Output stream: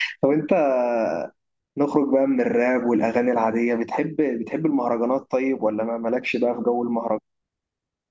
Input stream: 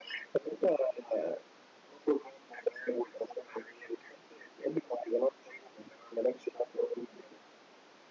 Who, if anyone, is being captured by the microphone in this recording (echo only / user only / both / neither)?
echo only